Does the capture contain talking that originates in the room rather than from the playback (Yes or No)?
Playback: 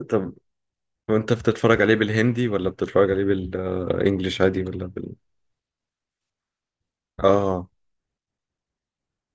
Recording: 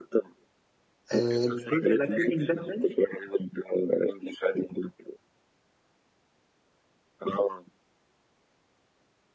Yes